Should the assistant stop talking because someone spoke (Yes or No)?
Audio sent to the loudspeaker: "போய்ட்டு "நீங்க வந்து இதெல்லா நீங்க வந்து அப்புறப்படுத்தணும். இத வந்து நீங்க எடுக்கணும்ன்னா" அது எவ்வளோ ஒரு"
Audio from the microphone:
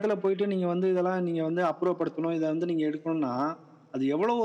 No